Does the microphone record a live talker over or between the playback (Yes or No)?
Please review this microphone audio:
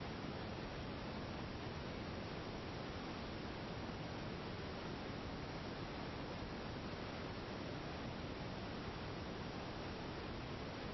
No